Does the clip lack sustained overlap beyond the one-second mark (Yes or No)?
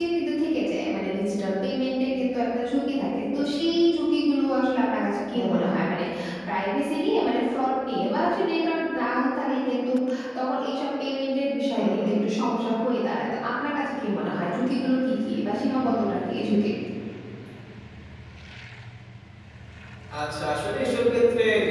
Yes